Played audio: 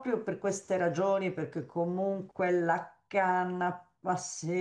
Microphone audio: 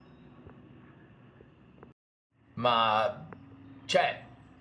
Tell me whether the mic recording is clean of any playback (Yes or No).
Yes